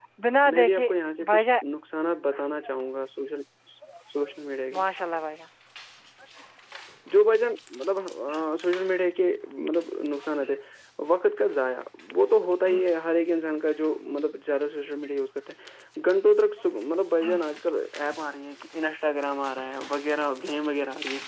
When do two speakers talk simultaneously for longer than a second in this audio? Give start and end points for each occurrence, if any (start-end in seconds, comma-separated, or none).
none